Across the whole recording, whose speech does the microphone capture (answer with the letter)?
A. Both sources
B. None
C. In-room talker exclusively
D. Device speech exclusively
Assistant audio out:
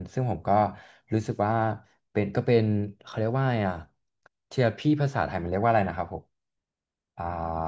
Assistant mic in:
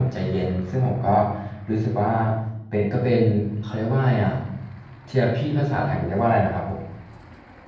D